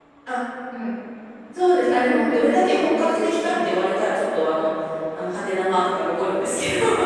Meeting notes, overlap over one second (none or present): present